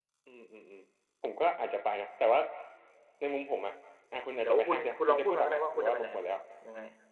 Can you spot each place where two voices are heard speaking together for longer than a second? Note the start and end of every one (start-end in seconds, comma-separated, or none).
4.4-6.1